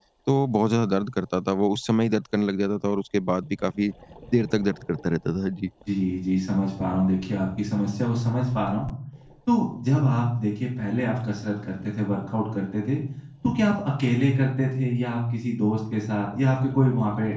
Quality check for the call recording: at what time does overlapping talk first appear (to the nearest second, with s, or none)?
none